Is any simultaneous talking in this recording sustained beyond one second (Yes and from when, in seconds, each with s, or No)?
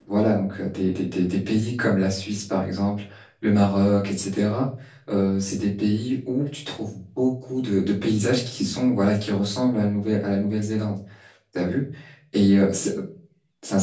No